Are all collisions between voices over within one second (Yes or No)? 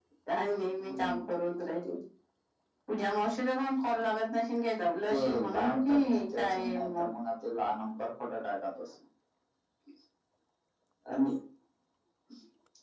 No